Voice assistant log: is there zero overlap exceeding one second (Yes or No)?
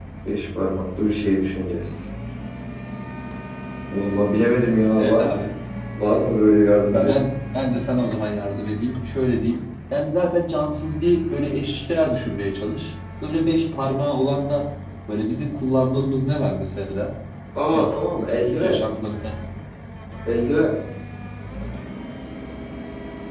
Yes